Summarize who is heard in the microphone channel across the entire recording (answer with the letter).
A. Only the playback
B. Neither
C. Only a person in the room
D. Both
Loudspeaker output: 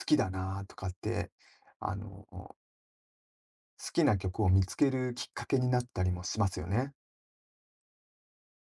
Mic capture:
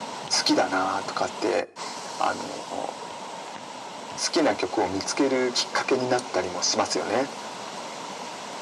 A